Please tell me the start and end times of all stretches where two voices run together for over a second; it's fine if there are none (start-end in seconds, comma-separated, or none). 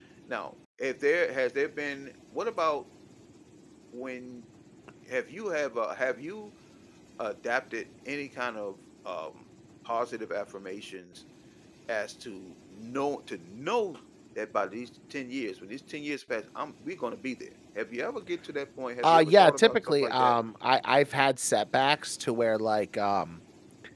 19.0-20.3